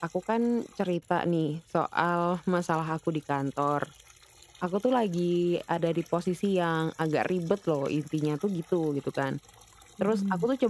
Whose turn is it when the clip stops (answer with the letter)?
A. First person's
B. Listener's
A